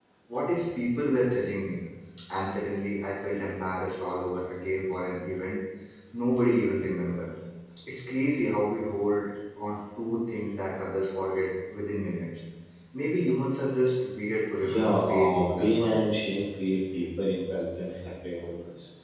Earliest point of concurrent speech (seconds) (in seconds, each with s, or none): 14.6 s